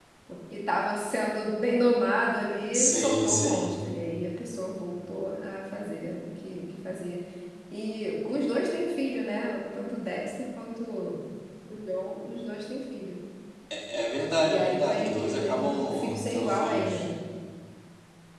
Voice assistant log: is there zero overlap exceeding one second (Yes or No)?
No